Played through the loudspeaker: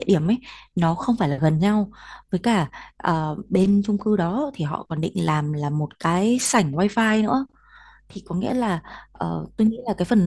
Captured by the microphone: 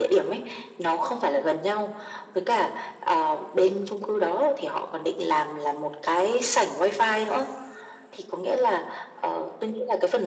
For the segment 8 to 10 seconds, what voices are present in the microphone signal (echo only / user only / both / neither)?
echo only